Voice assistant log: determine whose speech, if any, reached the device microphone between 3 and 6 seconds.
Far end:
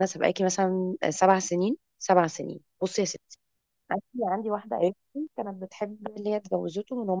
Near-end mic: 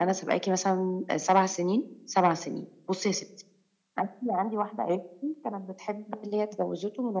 echo only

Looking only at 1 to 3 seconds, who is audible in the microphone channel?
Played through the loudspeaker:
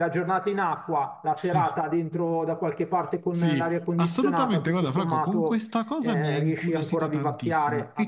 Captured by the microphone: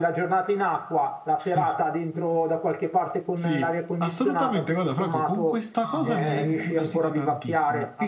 echo only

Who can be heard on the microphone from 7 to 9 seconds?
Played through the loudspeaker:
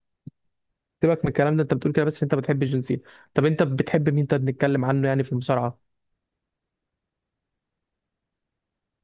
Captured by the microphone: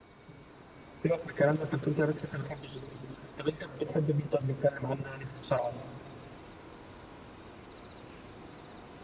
neither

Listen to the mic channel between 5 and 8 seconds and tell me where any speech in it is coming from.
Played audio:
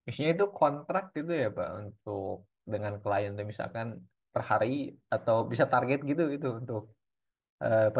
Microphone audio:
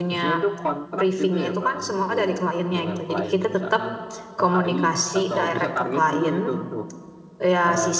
both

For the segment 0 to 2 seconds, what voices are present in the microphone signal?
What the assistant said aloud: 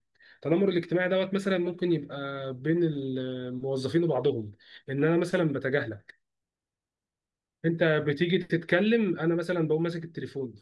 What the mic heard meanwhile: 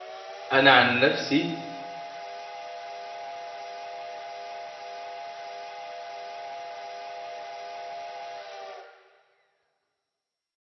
user only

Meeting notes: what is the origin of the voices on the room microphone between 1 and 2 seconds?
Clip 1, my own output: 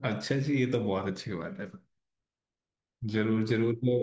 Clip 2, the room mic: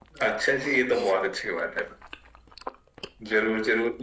echo only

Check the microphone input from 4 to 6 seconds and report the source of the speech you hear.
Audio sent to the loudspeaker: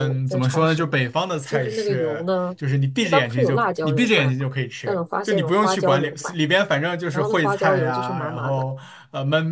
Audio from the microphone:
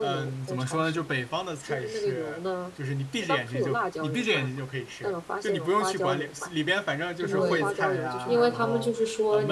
echo only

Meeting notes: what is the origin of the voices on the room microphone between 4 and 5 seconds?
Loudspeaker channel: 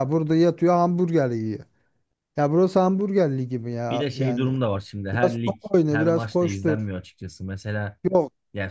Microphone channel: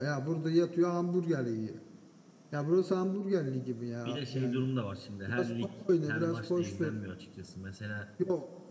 echo only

